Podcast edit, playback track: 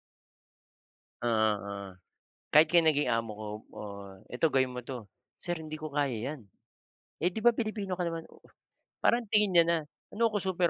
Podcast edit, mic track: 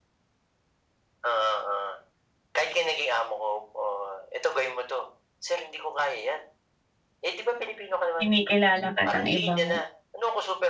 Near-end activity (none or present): present